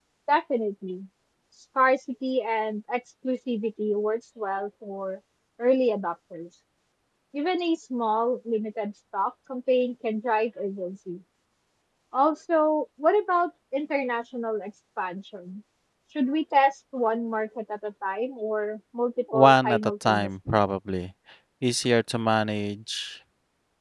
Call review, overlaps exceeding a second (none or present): present